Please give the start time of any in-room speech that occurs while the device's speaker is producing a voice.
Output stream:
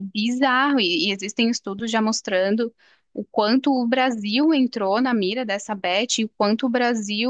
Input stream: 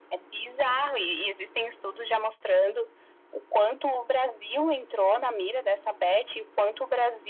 none

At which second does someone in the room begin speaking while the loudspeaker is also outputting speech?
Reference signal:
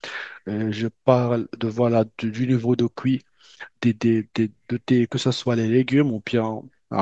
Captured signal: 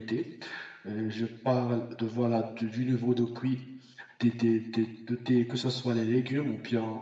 none

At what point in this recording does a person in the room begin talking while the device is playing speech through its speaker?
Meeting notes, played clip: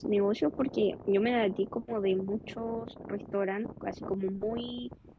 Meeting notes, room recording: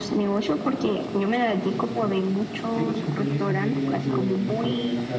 1.6 s

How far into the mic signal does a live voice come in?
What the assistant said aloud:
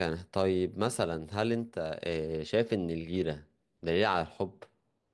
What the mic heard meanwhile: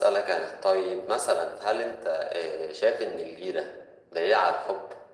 none

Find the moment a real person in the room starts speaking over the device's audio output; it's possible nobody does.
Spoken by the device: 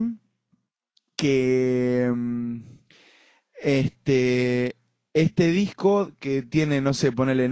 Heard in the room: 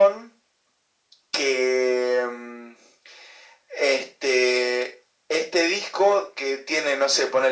none

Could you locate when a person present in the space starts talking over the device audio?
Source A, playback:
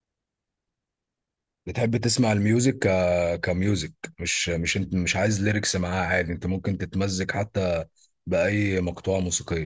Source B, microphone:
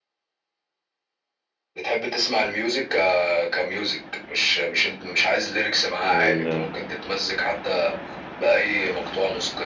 6.0 s

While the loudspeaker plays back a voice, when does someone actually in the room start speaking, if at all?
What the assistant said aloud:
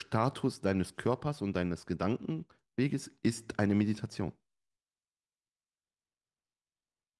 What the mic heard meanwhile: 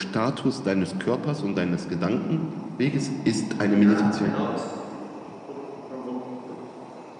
3.7 s

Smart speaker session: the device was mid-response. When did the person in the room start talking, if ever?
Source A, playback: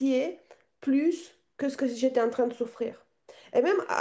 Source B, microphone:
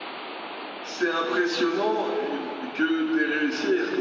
0.8 s

